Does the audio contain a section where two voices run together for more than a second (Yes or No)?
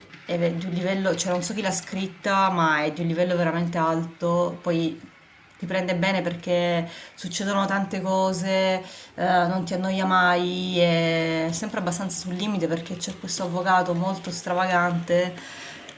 No